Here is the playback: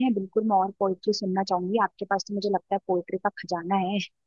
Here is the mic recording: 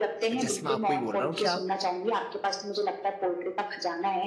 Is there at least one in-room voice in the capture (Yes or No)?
Yes